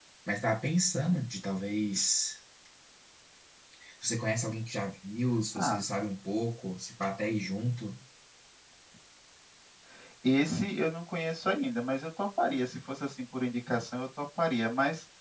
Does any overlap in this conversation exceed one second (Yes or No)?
No